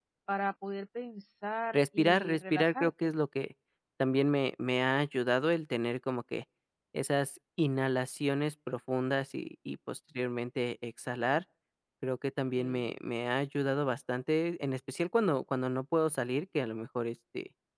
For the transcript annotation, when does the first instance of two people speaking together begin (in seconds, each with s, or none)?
1.7 s